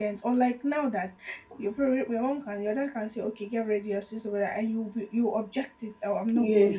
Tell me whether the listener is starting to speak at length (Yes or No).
No